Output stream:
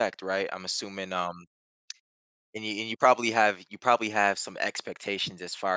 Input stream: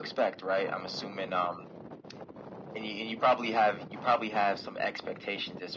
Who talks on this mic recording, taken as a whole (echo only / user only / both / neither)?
echo only